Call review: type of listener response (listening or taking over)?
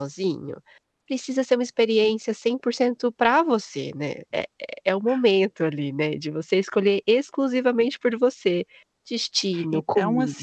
taking over